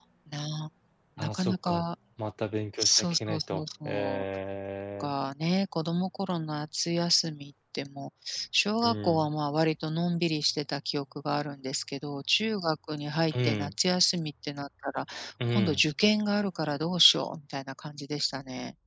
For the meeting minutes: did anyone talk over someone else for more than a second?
Yes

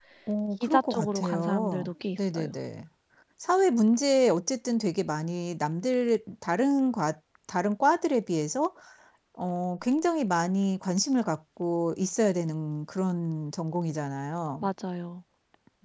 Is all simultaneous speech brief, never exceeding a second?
No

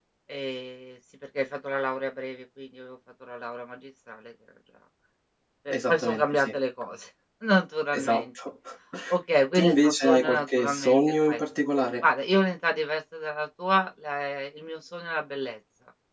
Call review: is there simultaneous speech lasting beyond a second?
Yes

